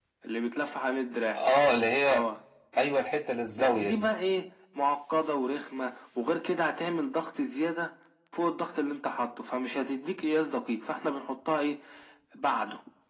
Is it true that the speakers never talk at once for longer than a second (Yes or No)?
Yes